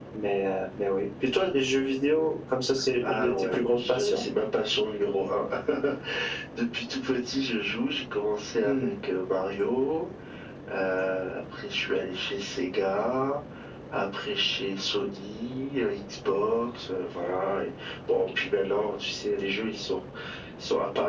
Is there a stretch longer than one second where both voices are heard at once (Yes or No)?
Yes